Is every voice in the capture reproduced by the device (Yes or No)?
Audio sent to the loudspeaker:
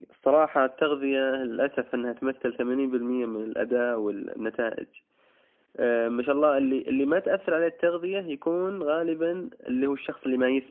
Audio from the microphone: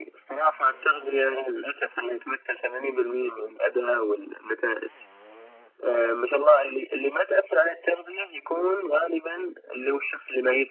Yes